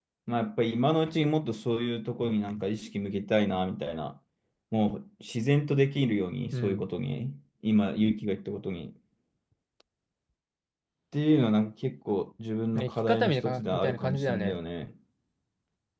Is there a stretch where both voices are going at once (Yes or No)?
Yes